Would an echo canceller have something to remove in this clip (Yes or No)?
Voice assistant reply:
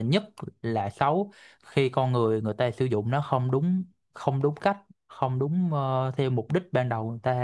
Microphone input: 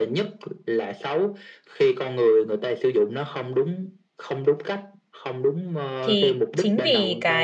Yes